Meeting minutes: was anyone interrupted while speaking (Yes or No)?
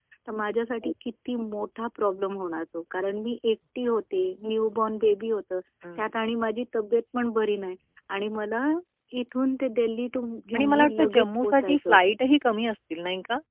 Yes